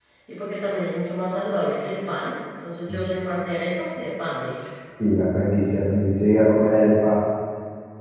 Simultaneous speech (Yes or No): No